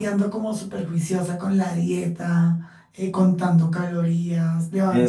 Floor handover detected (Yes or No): No